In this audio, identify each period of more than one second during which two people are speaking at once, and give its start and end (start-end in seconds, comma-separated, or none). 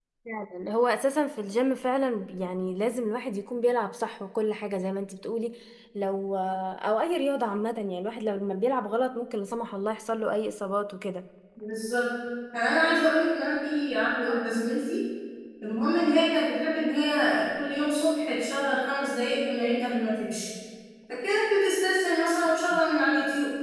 none